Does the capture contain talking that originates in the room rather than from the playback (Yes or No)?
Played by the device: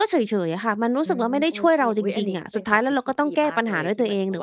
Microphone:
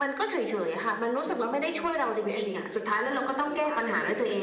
No